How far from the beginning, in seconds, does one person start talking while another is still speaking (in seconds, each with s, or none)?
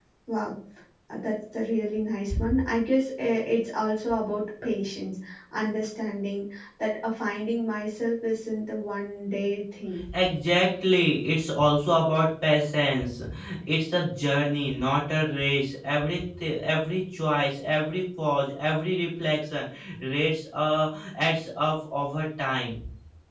none